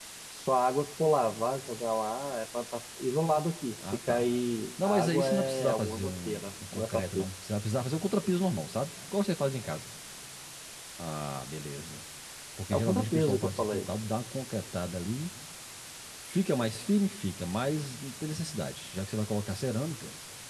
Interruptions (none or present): present